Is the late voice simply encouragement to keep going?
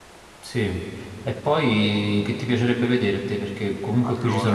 No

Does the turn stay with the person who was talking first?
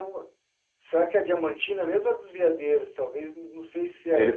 No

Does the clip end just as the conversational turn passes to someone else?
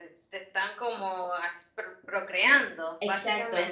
Yes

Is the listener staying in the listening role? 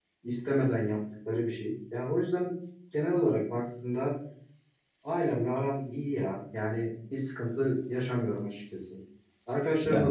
Yes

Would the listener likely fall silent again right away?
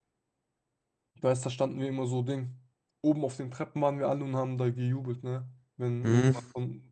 Yes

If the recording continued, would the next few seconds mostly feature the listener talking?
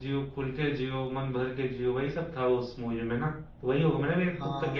Yes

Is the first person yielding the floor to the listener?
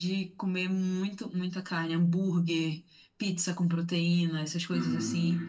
Yes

